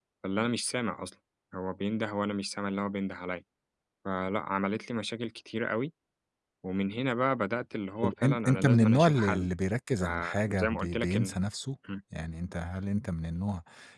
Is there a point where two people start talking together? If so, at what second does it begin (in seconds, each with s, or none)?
8.0 s